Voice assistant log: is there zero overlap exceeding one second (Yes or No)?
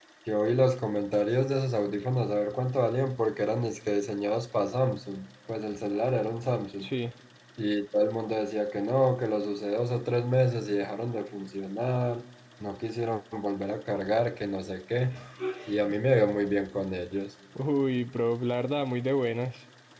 Yes